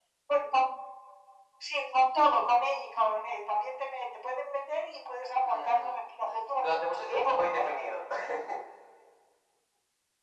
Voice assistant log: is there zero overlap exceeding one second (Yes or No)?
No